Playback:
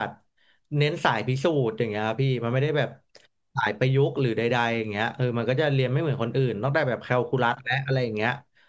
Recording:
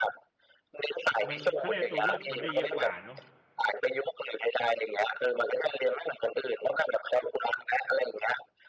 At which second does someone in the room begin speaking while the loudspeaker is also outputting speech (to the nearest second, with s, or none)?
1 s